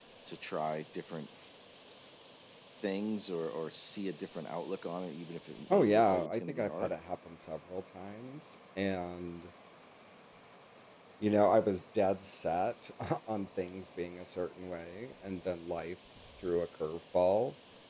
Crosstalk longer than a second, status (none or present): present